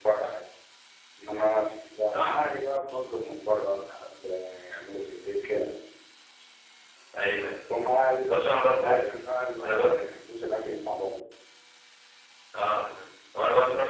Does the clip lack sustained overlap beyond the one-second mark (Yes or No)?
Yes